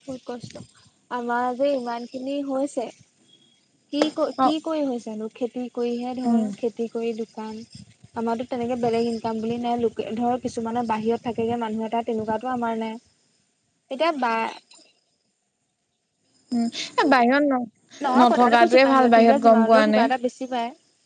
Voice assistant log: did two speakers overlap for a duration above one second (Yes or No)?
Yes